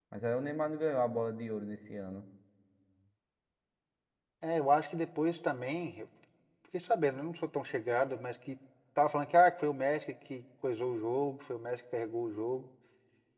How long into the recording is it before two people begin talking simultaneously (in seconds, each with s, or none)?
none